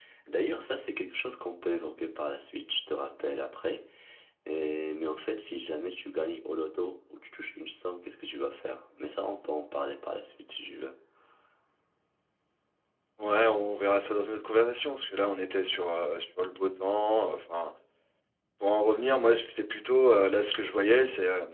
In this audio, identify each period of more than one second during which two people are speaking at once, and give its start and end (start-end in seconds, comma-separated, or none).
none